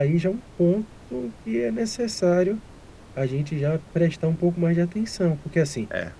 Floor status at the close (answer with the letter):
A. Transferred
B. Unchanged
B